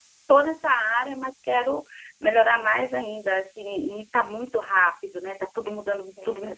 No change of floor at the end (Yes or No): No